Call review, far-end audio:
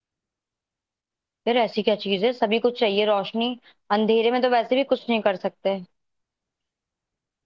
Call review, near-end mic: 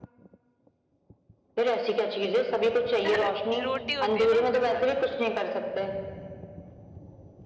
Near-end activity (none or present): present